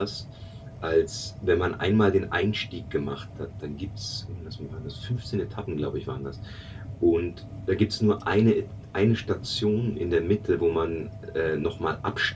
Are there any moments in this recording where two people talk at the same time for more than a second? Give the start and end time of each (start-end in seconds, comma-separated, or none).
none